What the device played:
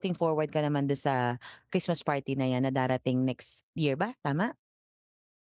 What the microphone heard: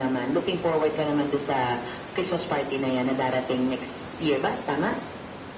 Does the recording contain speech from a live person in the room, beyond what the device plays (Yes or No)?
No